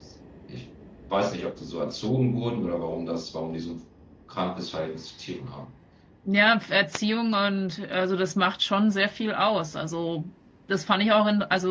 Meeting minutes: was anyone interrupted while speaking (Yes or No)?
No